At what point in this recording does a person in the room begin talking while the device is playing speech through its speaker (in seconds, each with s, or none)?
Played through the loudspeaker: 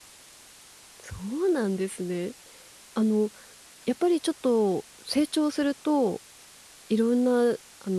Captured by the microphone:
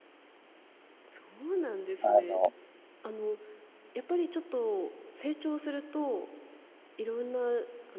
2.0 s